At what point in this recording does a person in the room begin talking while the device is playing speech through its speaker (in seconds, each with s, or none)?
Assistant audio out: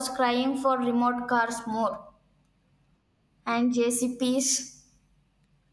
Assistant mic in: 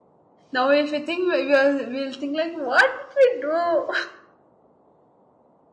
0.5 s